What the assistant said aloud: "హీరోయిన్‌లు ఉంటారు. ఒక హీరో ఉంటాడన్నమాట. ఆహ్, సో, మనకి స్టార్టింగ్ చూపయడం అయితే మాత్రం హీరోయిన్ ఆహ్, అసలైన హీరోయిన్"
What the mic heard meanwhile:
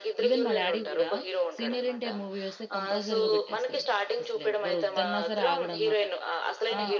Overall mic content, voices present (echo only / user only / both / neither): both